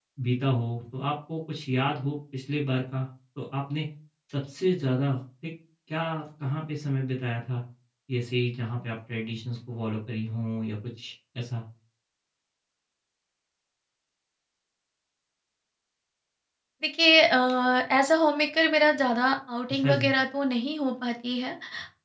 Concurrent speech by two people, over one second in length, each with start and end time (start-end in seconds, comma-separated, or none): none